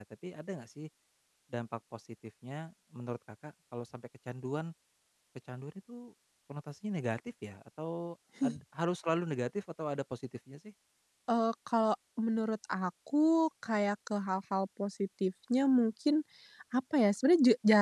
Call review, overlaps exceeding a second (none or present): none